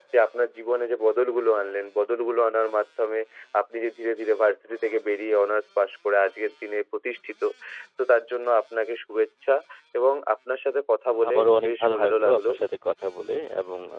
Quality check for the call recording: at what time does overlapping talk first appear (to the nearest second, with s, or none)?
11 s